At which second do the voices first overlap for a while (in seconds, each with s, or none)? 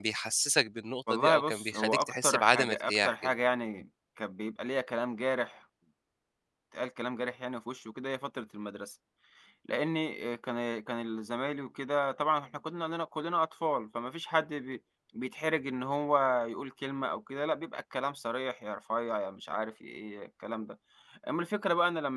1.1 s